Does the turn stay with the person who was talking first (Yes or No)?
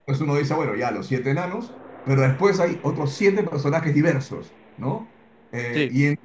Yes